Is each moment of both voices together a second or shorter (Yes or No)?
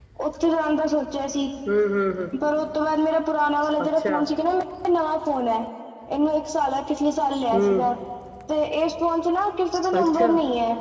Yes